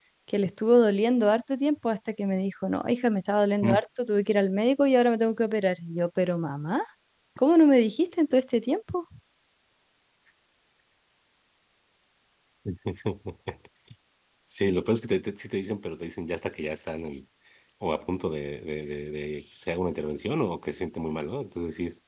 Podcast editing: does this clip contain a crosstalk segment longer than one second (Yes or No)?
No